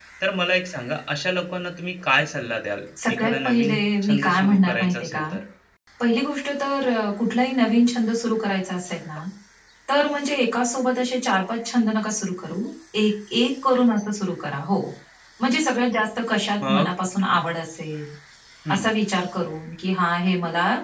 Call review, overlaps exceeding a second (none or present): present